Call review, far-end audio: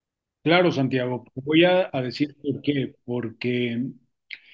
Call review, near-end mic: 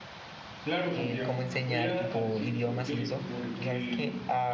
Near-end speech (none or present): present